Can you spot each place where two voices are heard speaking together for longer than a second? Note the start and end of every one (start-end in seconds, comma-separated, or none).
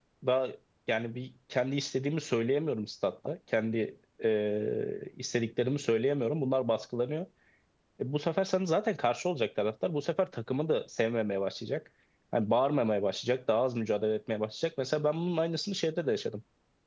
none